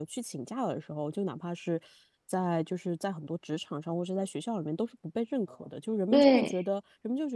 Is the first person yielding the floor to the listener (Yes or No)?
No